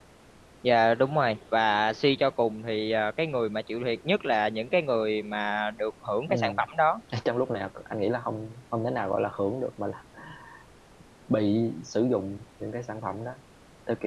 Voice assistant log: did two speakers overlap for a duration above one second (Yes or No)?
No